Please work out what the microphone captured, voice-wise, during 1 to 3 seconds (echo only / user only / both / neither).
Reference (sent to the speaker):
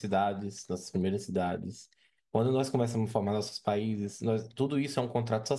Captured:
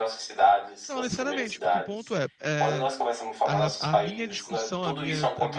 both